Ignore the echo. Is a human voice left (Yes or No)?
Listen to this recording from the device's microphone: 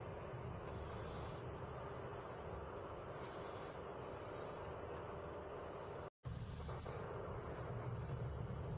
No